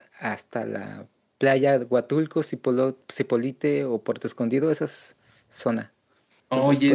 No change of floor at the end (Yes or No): No